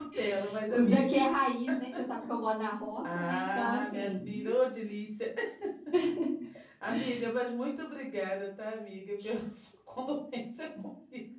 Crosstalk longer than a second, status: present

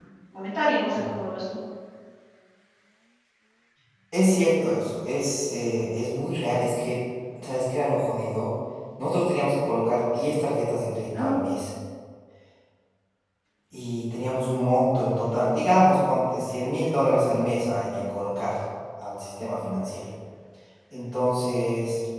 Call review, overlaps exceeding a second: none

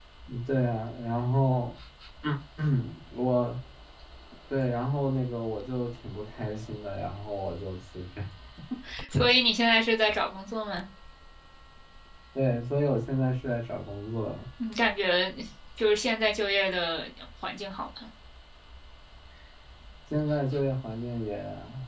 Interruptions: none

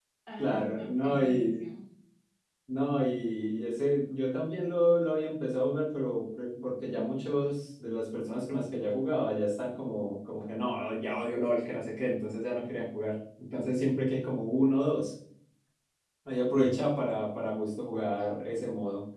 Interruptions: present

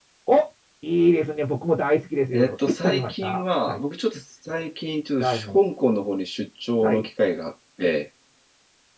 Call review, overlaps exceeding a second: present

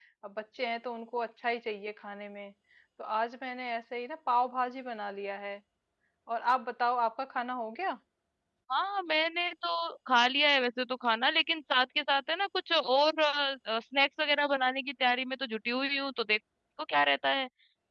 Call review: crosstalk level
none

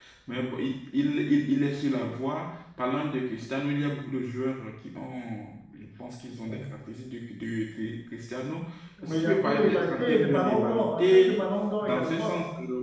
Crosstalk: present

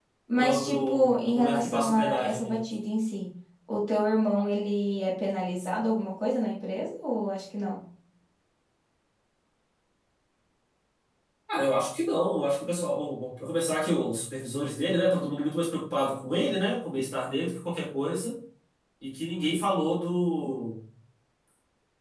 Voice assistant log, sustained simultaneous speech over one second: present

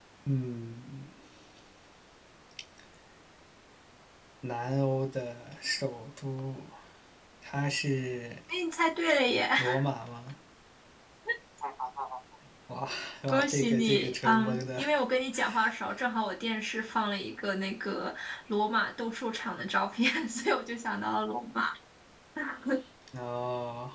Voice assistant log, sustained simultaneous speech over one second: present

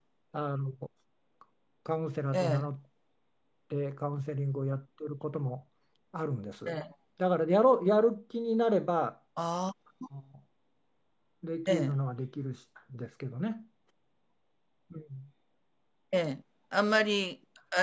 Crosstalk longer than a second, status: none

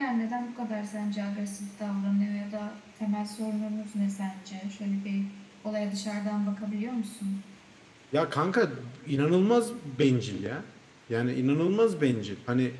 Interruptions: none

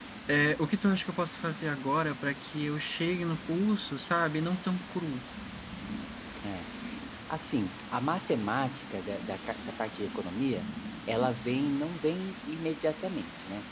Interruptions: none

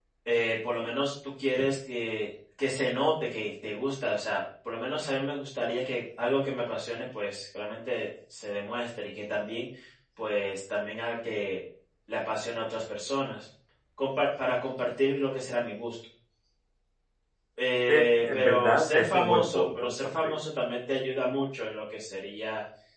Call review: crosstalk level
present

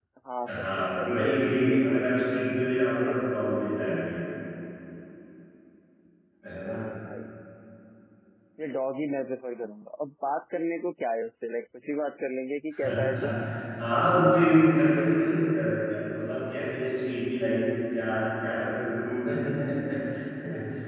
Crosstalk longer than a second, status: present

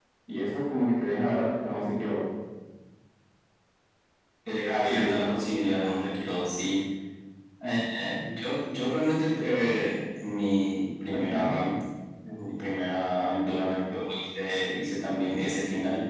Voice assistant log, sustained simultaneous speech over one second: none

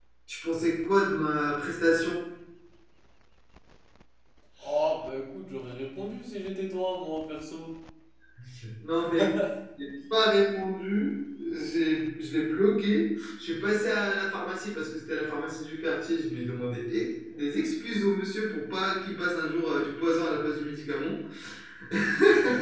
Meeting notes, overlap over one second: none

